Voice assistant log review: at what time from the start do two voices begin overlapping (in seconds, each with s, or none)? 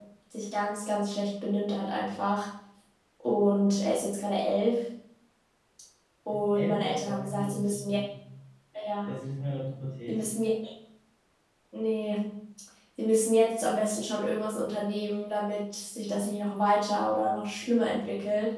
6.6 s